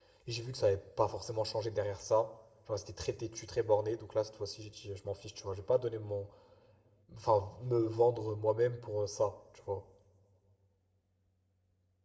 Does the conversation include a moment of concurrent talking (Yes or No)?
No